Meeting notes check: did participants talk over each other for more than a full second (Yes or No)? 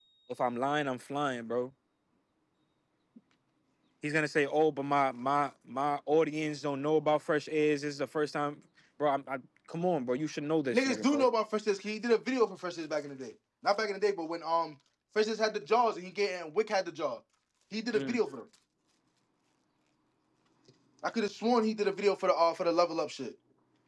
No